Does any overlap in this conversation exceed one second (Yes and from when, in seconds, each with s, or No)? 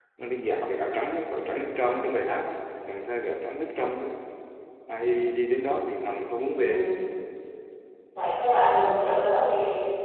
No